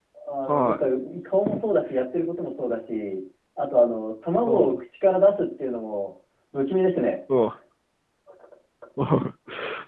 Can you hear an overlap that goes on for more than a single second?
No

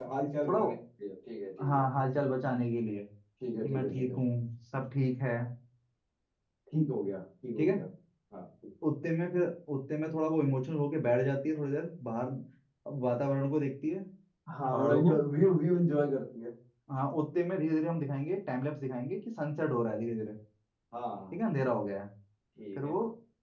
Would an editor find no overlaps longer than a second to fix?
Yes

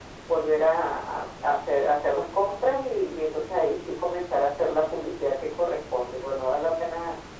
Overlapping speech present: No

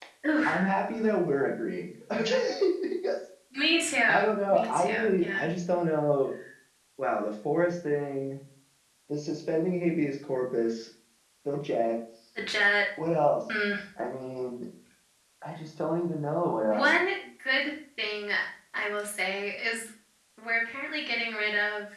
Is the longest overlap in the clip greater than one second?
Yes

